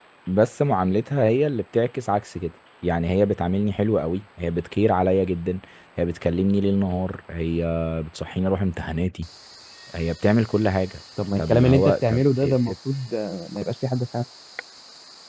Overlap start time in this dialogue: 11.2 s

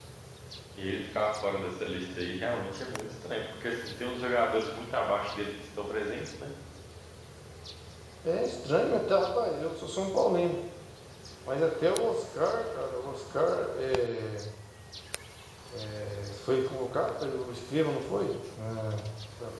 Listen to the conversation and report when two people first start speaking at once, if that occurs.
none

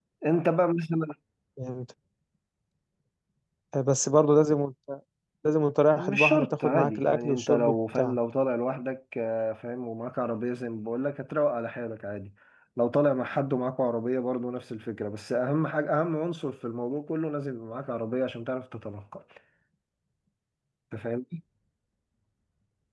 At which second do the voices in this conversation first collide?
6.0 s

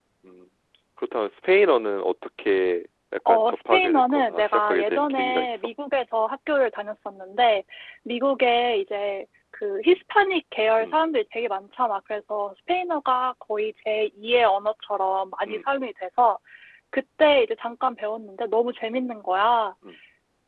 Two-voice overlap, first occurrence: 3.3 s

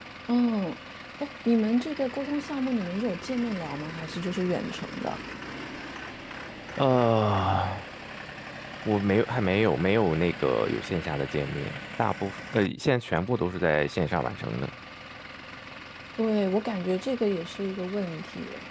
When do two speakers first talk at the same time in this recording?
none

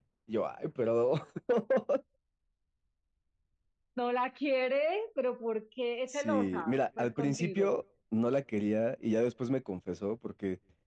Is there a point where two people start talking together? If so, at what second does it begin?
6.1 s

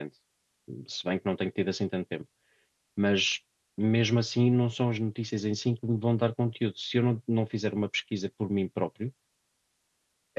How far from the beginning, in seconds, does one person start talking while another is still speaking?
none

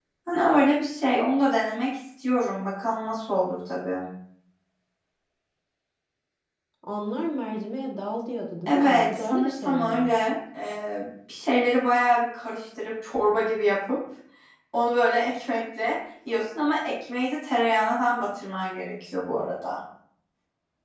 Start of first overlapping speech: 8.7 s

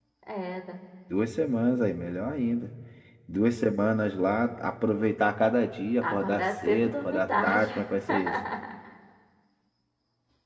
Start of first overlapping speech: 6.0 s

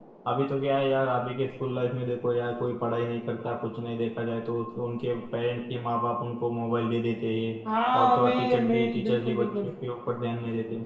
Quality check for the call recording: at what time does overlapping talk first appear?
8.0 s

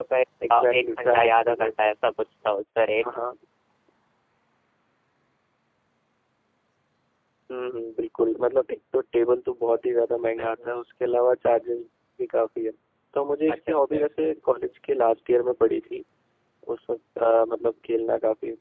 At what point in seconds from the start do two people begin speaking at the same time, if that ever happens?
0.5 s

